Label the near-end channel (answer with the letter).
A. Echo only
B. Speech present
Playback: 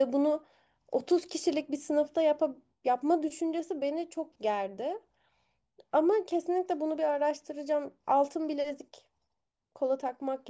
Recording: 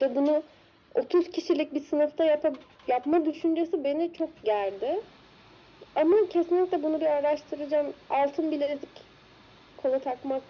A